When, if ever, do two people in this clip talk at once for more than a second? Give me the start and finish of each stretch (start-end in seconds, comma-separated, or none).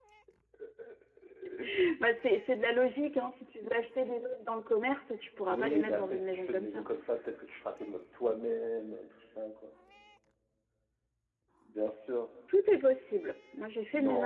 5.5-6.8